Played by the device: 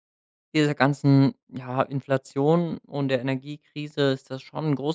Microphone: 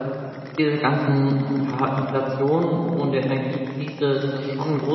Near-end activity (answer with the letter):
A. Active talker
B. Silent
B